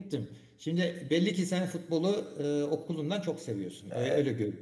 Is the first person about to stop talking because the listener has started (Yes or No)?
Yes